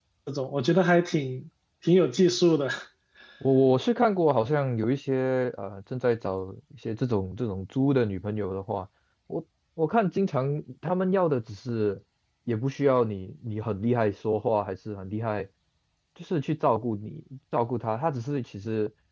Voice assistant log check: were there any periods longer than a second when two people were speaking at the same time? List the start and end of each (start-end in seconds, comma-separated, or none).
none